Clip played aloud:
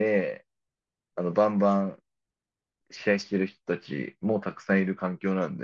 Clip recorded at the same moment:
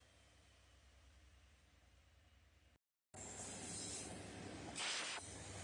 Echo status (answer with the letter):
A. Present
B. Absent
B